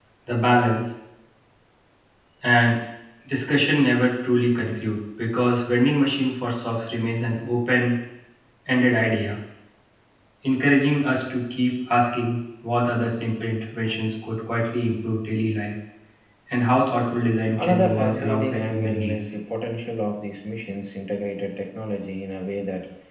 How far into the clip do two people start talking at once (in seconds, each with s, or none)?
17.6 s